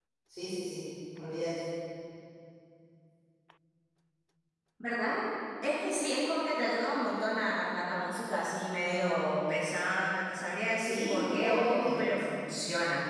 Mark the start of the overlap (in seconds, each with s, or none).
10.8 s